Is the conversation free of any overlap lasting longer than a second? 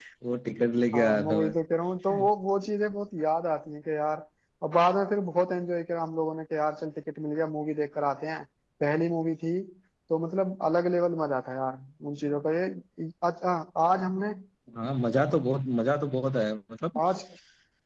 Yes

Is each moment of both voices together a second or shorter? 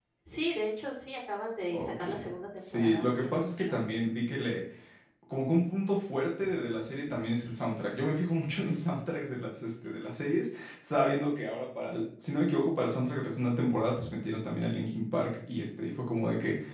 No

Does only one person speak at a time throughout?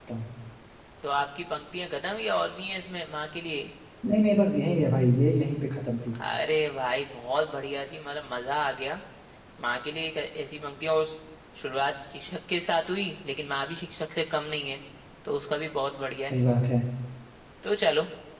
Yes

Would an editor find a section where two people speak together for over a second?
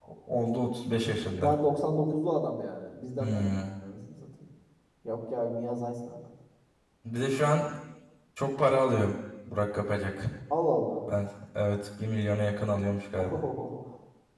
No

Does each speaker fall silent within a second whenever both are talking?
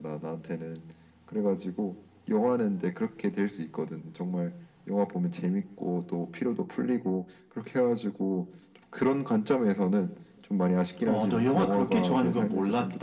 No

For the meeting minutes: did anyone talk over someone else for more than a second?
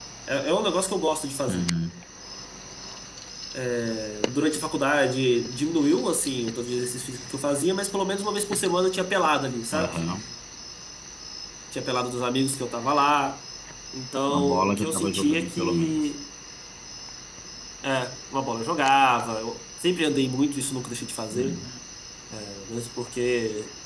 Yes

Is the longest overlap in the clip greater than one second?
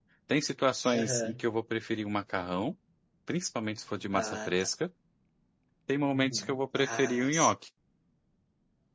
Yes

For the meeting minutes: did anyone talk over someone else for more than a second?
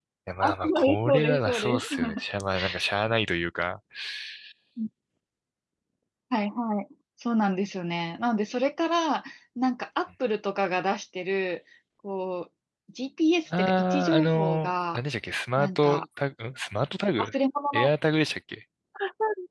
Yes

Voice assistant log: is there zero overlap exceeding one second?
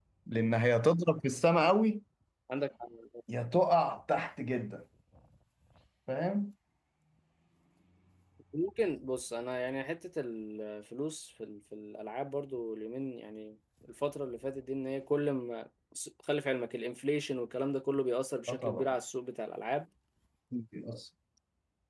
Yes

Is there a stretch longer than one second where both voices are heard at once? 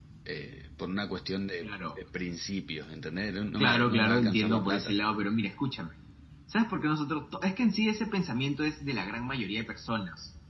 Yes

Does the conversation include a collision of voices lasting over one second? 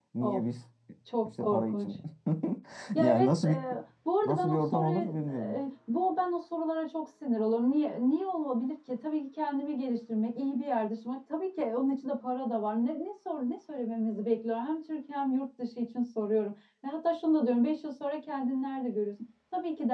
Yes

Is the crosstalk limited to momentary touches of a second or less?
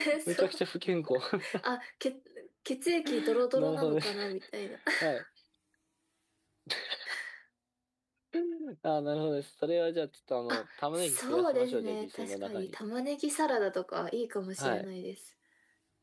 No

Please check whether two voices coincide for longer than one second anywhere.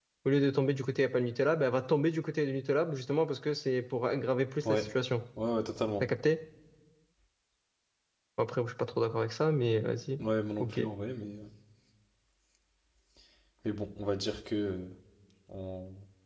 No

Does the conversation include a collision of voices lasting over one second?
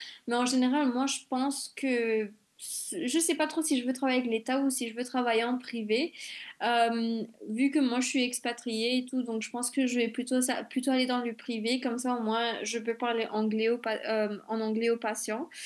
No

